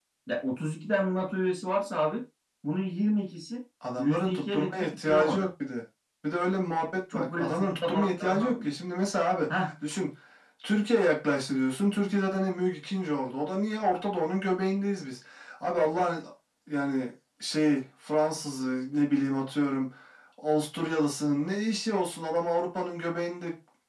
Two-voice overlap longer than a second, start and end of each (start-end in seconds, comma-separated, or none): 4.0-5.5, 7.1-8.7